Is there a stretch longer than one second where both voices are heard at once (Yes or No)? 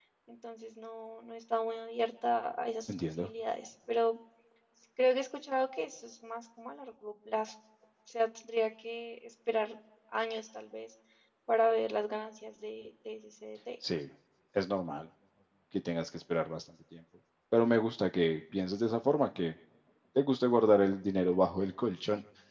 No